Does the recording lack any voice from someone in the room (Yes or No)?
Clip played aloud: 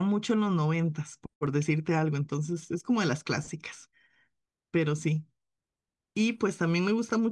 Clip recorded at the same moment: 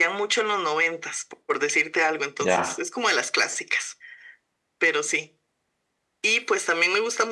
No